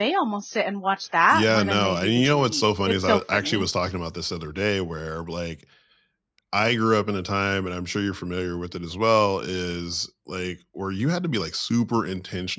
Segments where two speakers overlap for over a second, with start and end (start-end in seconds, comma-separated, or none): 1.3-3.6